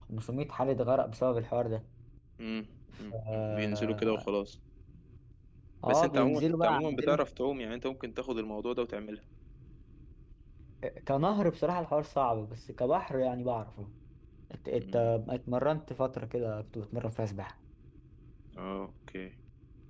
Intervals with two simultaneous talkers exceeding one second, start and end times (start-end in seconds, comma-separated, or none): 3.1-4.3, 5.8-7.2